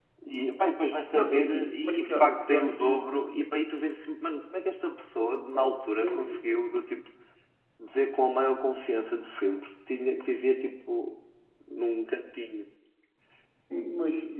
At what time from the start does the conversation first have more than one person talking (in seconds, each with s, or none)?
1.1 s